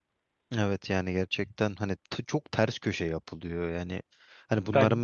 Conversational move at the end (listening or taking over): listening